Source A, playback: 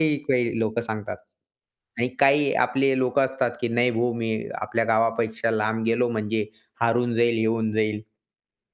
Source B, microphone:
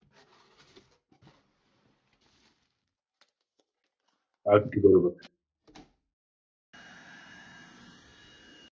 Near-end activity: present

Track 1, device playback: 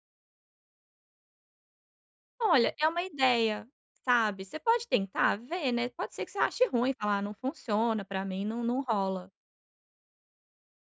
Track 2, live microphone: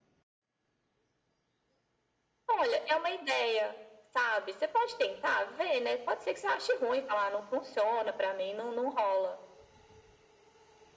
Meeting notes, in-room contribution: none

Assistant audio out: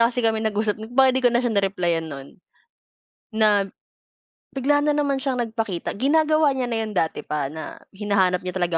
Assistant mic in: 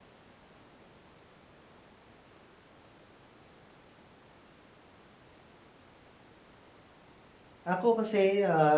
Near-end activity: present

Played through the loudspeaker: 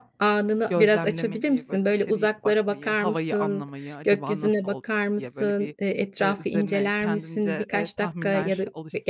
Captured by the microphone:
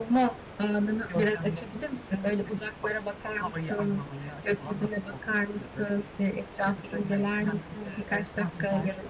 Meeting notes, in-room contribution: none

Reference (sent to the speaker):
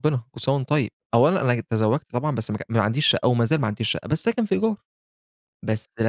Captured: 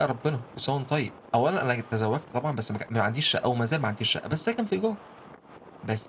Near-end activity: none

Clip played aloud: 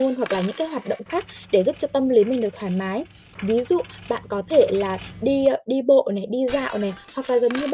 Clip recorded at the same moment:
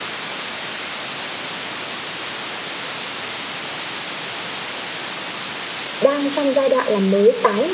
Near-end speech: present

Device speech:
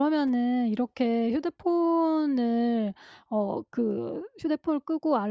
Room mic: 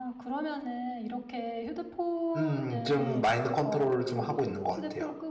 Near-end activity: present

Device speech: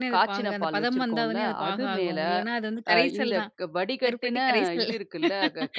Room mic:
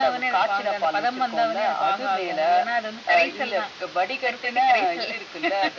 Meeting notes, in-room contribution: none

